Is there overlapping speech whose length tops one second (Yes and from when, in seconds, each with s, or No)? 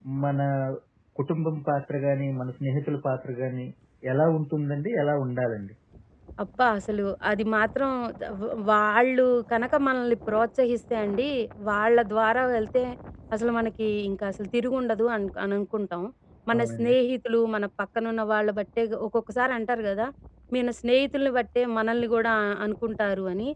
No